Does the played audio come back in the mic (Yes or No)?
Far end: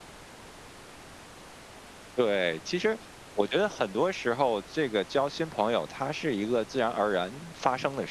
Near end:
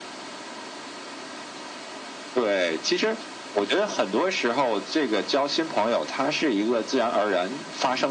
Yes